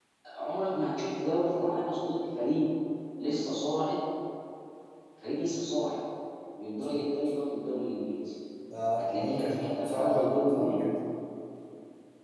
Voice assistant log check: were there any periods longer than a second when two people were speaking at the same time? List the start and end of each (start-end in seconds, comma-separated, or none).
9.0-10.8